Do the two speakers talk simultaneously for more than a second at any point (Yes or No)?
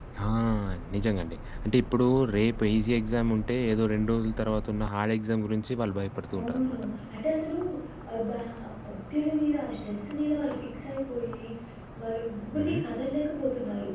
No